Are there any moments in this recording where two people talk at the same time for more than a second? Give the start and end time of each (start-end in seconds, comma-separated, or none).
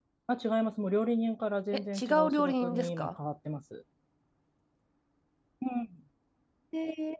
1.7-3.2